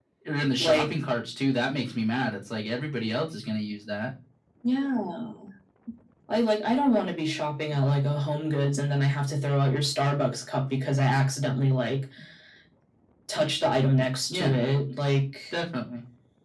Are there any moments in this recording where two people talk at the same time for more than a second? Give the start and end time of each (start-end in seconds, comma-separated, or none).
none